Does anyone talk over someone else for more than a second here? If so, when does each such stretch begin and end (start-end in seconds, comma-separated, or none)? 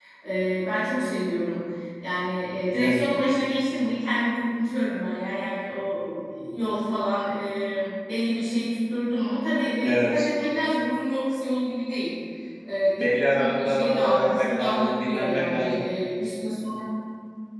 13.0-15.6